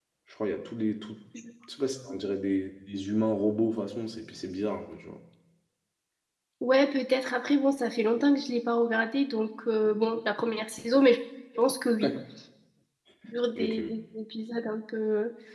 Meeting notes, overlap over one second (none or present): none